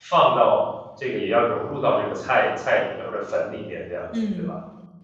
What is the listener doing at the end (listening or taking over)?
taking over